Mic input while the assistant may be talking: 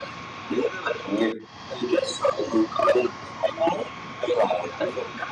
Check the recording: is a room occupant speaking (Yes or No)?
No